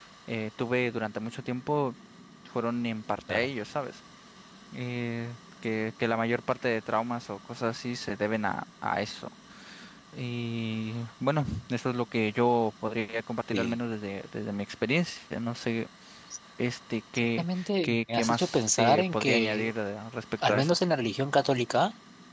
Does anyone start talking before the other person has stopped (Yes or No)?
Yes